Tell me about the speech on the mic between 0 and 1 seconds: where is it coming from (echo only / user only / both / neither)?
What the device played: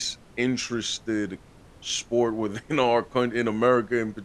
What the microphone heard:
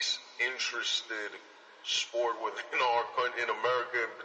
echo only